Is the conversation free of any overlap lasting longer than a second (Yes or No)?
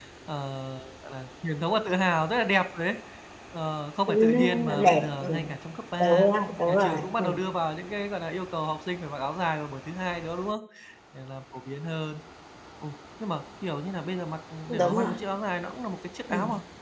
No